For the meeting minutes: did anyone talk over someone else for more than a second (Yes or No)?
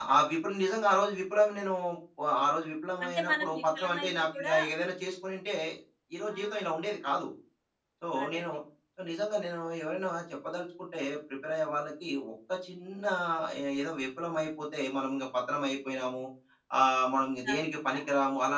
Yes